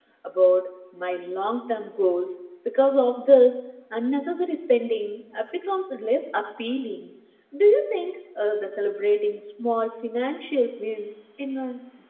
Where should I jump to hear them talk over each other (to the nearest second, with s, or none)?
none